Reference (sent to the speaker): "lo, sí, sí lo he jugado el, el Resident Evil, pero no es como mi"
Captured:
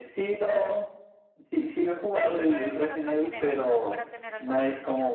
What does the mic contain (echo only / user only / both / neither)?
both